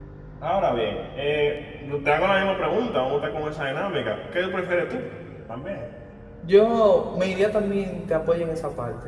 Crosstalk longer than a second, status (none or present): none